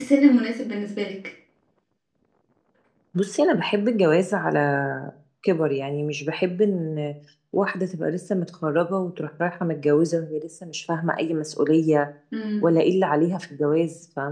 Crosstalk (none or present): none